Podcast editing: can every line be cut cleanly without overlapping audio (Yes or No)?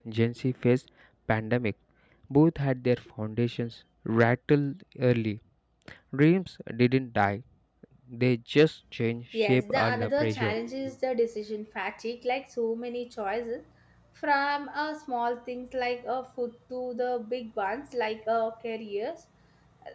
No